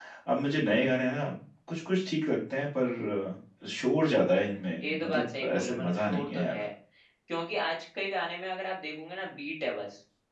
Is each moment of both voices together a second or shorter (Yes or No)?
No